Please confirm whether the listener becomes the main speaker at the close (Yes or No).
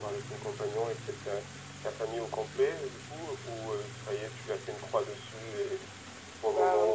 No